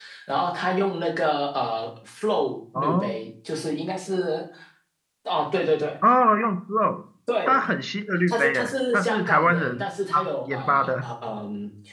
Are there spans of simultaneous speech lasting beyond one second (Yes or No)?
Yes